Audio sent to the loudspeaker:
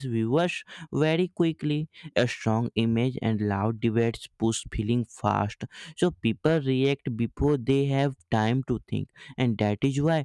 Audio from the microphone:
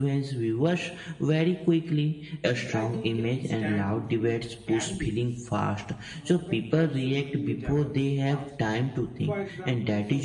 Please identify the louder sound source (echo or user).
echo